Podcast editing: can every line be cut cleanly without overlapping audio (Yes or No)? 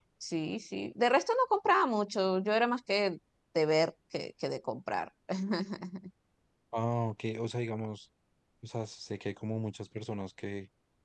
Yes